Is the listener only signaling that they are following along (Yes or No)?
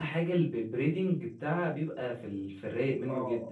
No